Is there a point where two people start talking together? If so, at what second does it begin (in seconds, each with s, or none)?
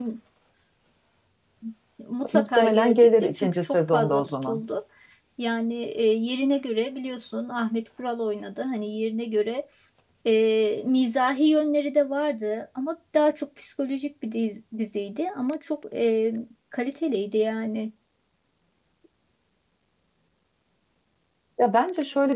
2.4 s